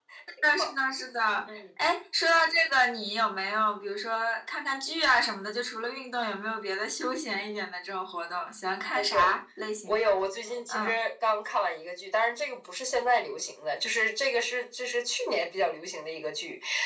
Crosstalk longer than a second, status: none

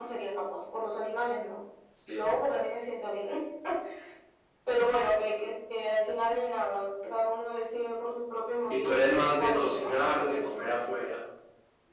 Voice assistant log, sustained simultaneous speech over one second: present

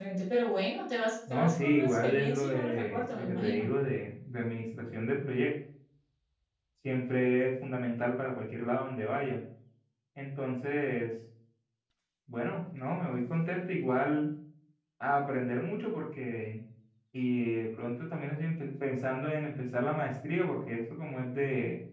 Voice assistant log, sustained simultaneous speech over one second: present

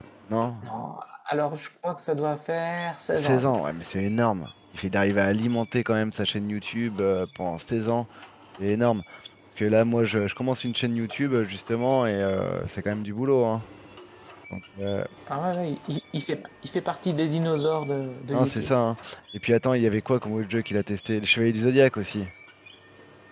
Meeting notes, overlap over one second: none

